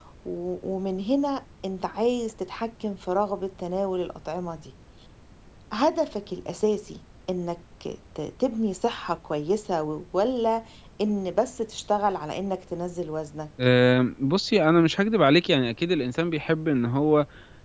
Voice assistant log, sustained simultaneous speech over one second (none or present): none